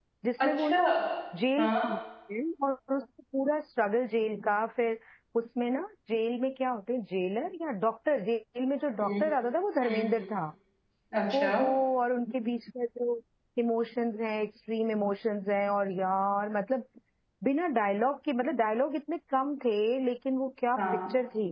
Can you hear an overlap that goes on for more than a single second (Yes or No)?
No